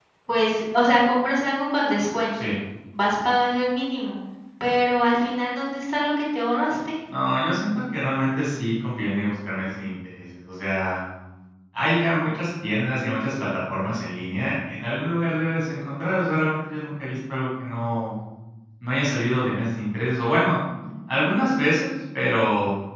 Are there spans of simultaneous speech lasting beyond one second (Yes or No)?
No